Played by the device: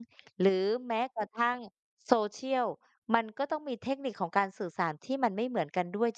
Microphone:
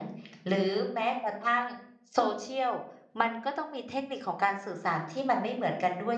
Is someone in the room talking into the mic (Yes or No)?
No